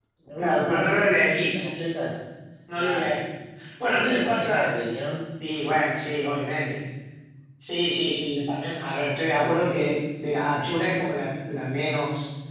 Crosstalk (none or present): present